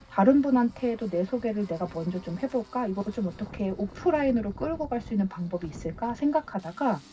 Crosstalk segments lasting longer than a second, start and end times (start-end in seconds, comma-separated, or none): none